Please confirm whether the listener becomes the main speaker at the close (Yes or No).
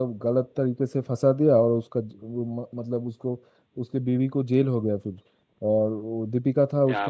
No